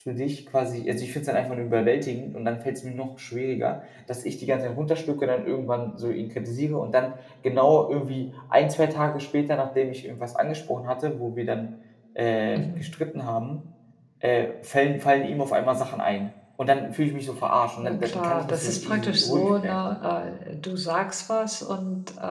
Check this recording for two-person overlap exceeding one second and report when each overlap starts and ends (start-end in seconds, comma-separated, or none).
17.8-19.8